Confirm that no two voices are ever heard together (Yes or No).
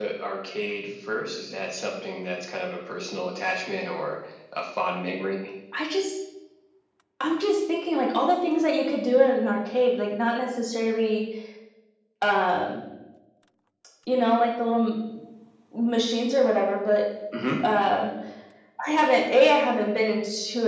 Yes